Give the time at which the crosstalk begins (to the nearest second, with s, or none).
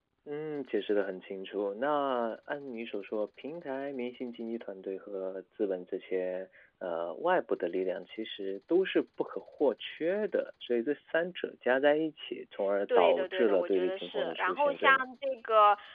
13 s